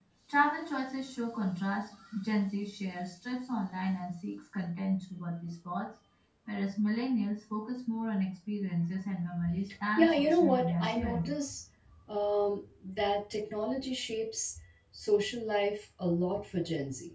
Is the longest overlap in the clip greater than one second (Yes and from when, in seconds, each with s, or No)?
Yes, from 10.0 s